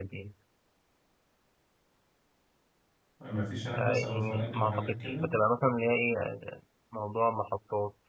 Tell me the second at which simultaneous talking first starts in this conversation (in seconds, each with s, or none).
3.8 s